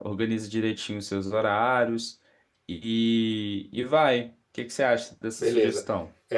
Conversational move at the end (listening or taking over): taking over